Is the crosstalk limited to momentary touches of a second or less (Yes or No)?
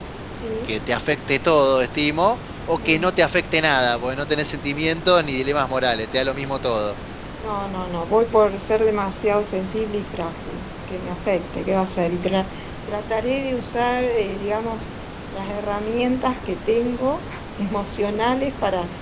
Yes